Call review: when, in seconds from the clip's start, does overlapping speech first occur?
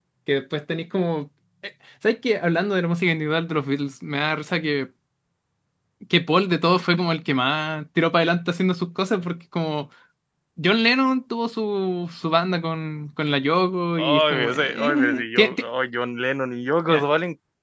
14.0 s

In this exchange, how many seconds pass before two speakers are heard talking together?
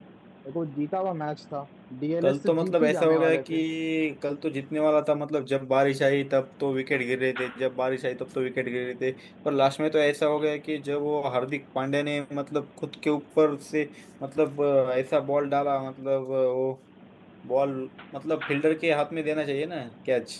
2.2 s

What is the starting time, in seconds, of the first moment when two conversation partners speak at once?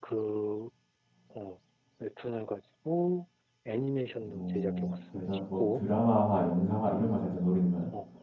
4.2 s

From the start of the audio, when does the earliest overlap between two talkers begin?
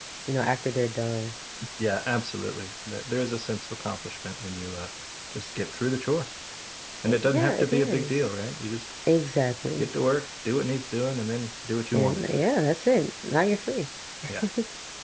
7.0 s

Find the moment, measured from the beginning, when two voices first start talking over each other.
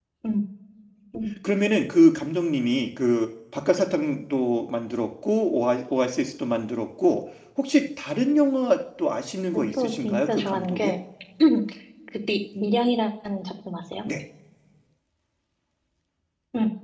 9.5 s

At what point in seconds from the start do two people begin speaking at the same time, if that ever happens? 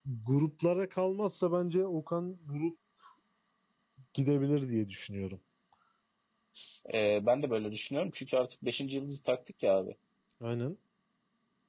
none

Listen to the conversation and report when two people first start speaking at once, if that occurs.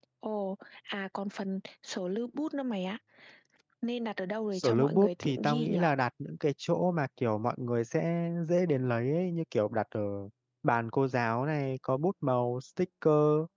4.5 s

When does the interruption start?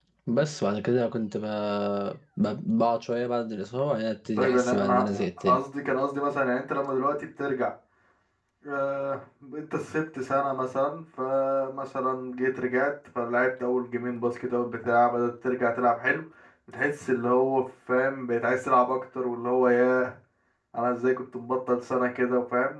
4.4 s

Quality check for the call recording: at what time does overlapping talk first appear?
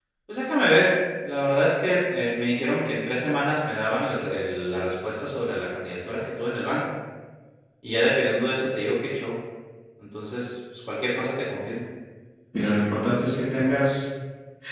none

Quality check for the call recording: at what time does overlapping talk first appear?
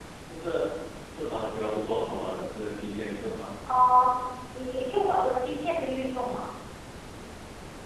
none

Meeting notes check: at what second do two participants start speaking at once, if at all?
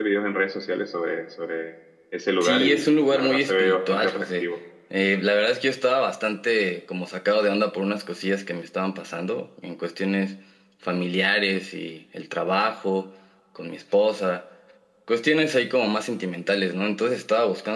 2.4 s

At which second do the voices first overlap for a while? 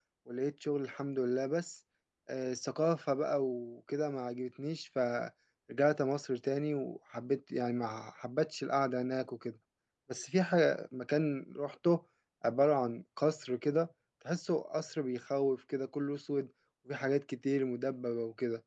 none

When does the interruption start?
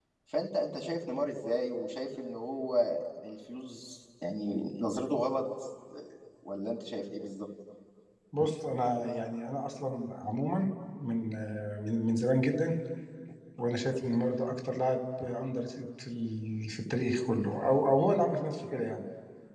none

